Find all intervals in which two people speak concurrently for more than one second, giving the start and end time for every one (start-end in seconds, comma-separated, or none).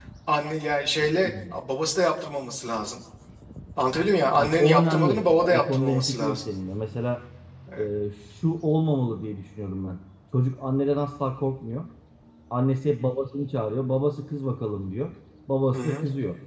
4.4-6.5